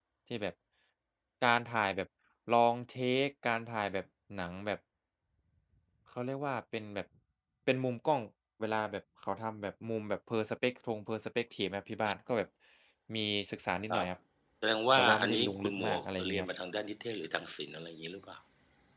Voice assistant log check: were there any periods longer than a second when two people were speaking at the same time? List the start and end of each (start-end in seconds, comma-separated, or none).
15.0-16.5